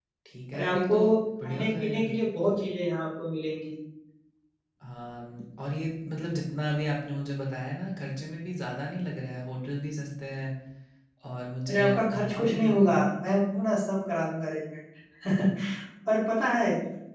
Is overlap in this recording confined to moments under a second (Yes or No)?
No